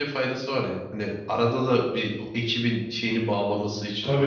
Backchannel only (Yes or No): No